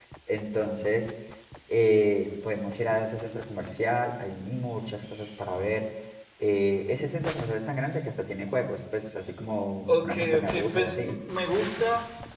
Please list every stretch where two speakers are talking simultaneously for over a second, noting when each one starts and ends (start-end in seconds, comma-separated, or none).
9.9-11.2